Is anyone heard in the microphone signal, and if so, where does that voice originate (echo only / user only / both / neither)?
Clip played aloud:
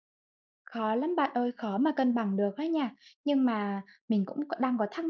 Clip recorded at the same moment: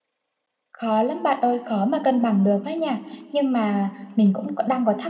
echo only